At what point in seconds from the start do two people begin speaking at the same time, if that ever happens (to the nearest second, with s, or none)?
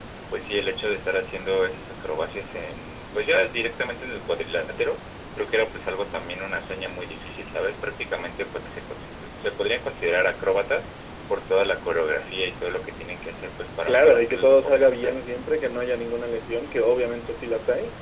14 s